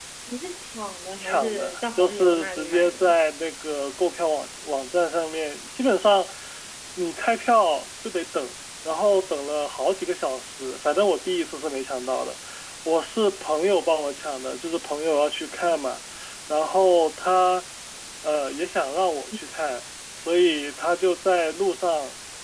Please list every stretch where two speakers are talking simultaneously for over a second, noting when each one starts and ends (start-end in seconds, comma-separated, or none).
1.2-3.1